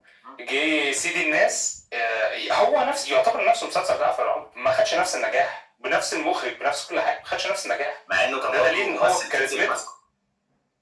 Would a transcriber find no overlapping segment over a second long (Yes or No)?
No